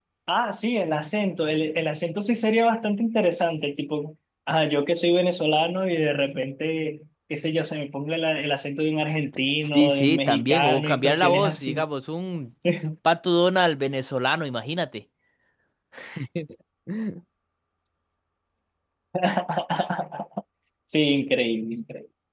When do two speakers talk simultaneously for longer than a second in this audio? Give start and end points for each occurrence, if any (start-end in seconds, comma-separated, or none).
9.6-11.8